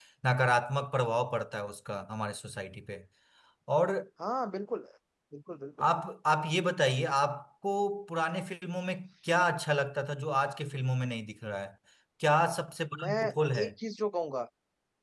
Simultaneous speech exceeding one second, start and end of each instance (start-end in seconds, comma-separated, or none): none